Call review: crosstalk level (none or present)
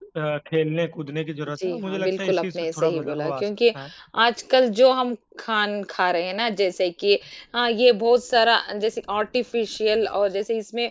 present